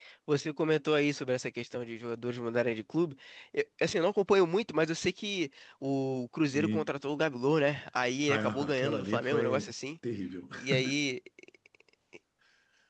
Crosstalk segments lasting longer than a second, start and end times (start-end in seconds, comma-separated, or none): 8.3-9.7